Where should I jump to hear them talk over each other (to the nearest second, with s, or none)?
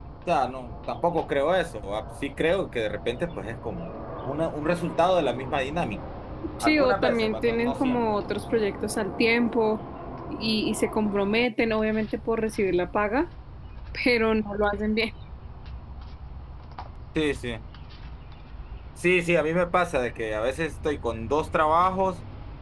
7 s